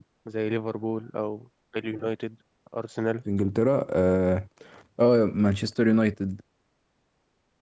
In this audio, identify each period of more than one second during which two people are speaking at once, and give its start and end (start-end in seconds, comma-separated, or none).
none